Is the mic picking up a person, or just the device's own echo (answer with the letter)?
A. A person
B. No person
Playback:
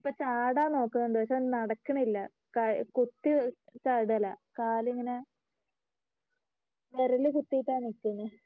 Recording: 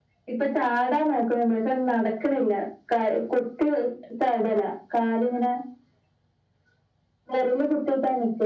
B